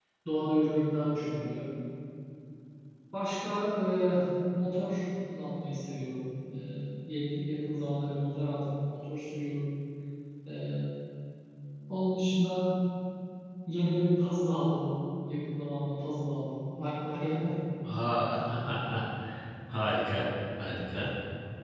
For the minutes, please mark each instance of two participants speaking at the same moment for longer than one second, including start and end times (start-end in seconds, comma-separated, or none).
none